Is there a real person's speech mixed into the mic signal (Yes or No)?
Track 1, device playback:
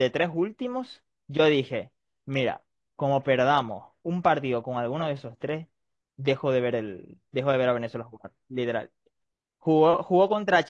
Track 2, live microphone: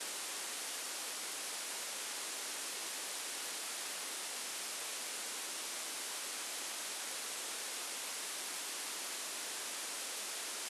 No